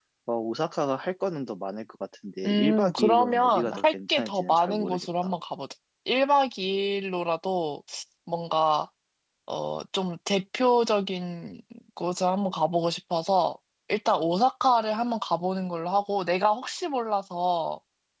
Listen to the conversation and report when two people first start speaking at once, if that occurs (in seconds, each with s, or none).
2.4 s